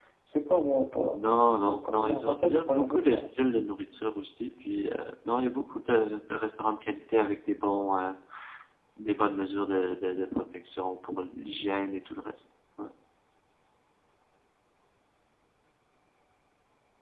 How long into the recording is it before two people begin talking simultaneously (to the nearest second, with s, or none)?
2 s